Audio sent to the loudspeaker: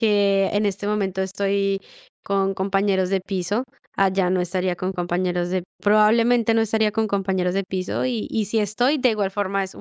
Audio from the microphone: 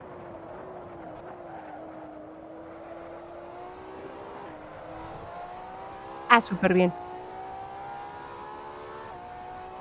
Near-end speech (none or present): present